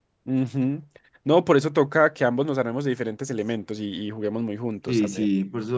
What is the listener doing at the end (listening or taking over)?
taking over